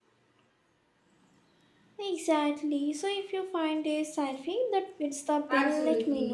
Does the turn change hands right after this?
Yes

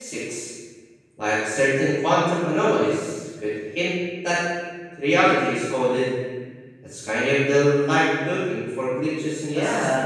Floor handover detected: Yes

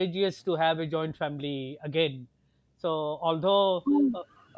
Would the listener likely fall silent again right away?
Yes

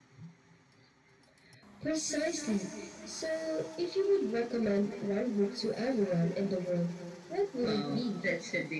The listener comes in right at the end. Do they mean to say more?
Yes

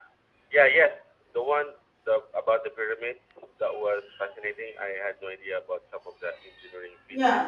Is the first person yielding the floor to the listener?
Yes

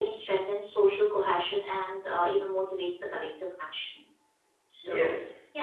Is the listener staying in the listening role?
No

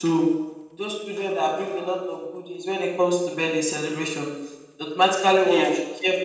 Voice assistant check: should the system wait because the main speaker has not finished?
Yes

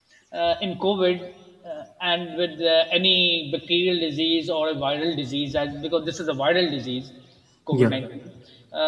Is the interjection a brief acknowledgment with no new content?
Yes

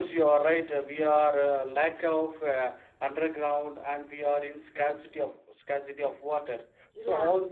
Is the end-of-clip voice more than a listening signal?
No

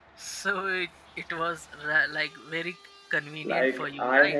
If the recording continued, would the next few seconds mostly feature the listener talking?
Yes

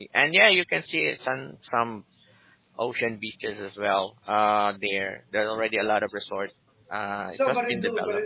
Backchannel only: No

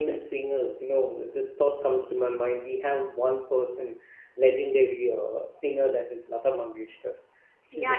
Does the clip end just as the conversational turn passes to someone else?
Yes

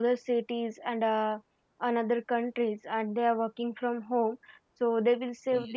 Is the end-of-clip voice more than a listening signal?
No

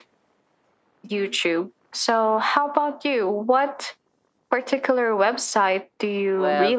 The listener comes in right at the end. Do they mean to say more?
Yes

